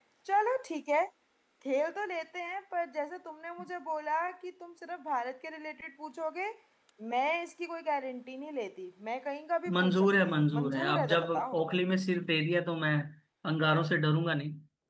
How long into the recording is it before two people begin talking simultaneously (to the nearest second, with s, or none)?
10 s